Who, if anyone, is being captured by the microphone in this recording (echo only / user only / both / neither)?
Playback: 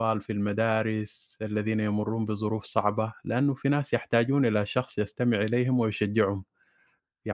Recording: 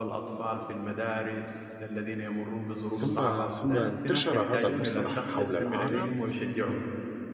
both